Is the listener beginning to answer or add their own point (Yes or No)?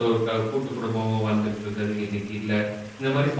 No